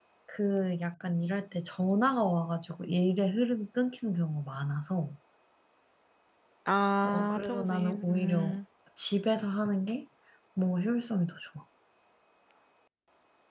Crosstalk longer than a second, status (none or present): present